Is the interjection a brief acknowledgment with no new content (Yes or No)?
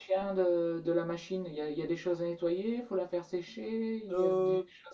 No